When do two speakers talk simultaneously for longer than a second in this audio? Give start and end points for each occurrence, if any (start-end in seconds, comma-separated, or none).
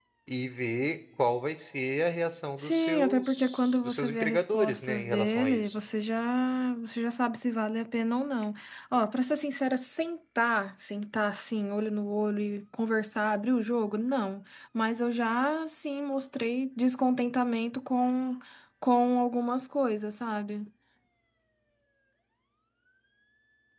2.6-5.8